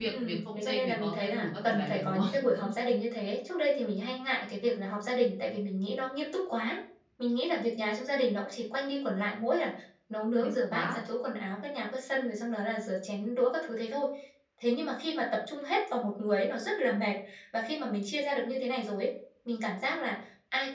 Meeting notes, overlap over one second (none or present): present